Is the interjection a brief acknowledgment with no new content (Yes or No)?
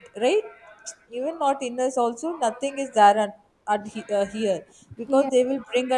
Yes